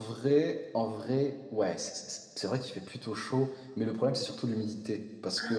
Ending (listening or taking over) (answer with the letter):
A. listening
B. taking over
A